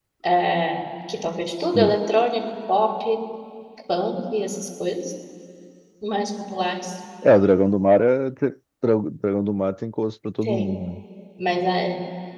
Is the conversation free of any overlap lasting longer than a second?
Yes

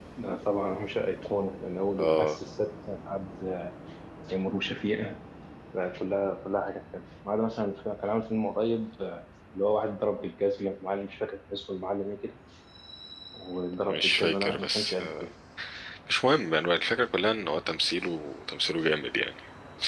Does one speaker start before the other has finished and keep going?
Yes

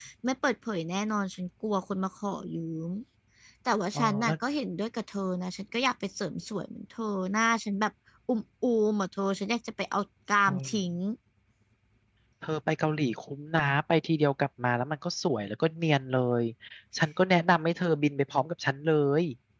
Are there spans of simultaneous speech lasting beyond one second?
No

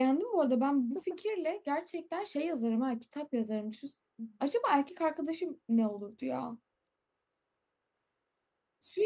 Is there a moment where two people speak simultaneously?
No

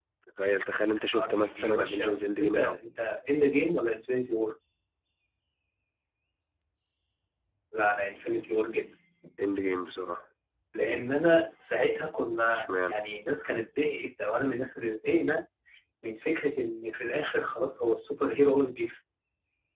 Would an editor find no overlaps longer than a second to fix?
No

